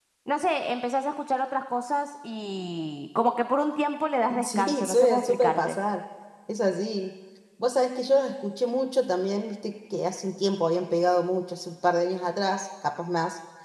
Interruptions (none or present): present